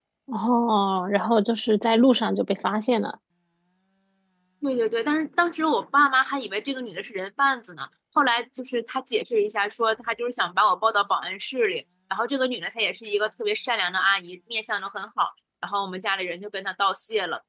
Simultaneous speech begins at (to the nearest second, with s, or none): none